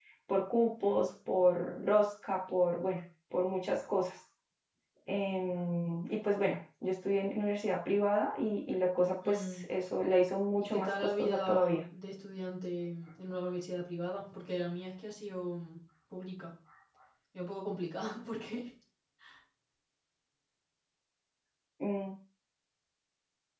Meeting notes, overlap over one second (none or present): present